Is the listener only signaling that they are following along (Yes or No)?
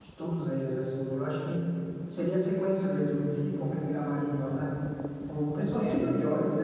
Yes